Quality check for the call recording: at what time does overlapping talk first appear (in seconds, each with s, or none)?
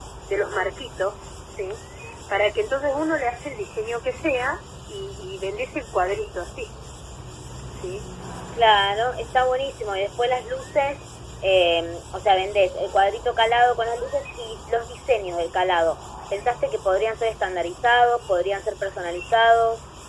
none